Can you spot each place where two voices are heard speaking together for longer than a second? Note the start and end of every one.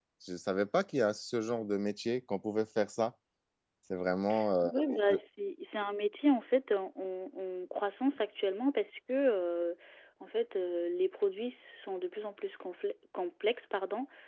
none

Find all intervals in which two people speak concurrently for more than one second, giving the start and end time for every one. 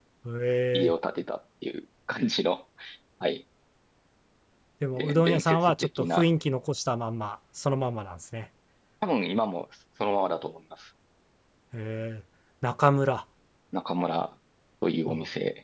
4.9-6.3

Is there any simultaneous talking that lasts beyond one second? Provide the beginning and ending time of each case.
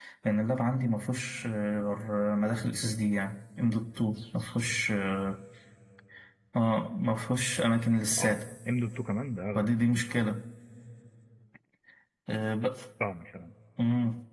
none

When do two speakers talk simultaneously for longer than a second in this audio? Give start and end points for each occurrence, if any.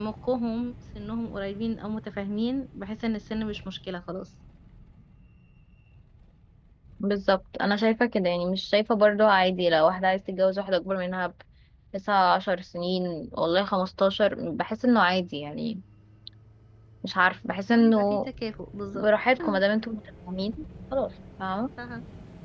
none

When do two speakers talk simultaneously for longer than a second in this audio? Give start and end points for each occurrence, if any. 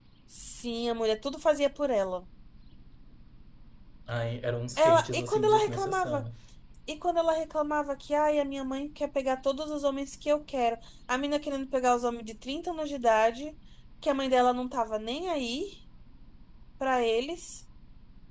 4.8-6.2

